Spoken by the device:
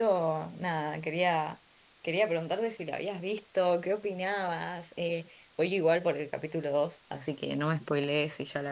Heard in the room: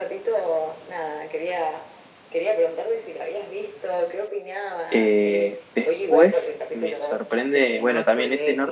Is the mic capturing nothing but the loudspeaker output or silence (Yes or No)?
No